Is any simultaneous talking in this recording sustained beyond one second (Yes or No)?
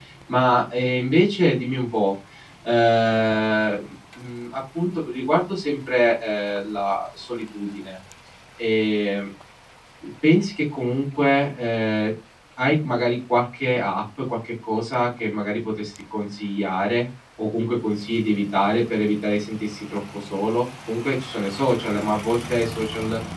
No